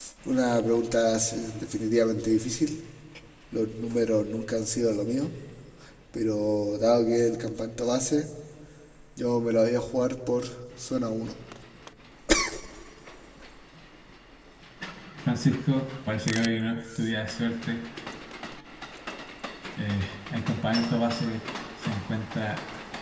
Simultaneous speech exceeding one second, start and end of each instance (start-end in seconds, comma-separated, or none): none